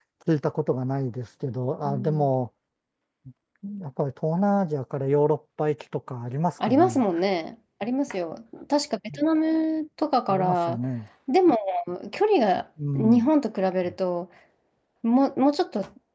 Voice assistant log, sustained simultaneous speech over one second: none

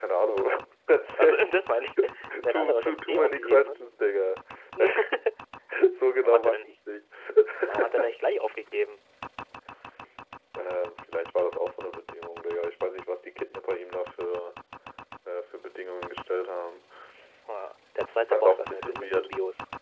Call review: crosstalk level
present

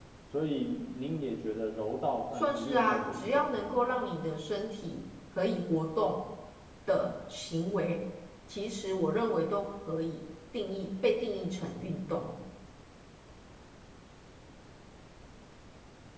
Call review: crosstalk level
present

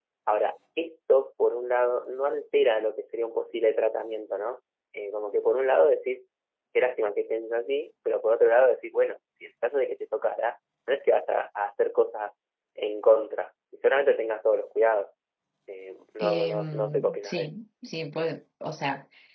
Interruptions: present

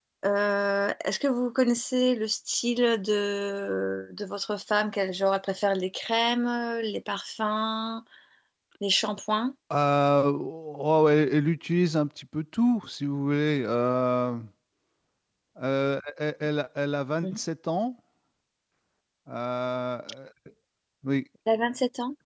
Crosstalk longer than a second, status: none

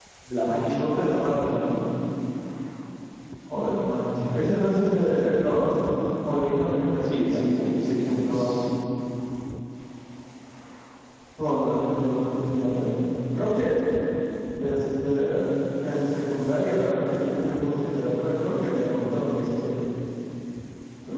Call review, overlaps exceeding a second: present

